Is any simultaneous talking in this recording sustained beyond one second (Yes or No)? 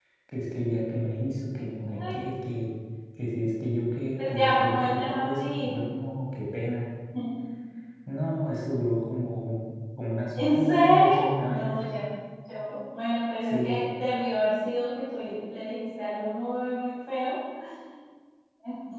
Yes